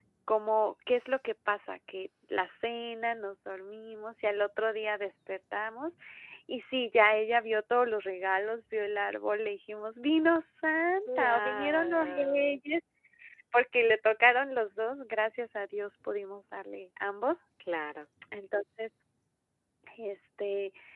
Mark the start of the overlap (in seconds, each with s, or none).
11.1 s